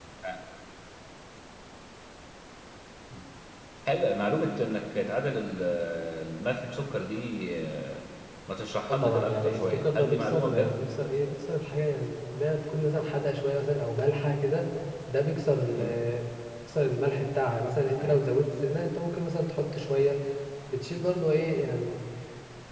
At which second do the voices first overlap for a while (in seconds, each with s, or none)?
8.9 s